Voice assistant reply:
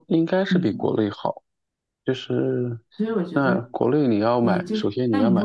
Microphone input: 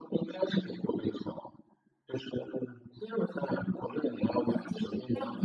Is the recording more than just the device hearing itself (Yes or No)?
No